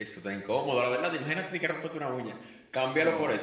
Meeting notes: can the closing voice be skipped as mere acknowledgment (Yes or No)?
Yes